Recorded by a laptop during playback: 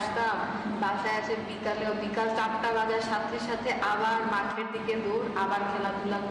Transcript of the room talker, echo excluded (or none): none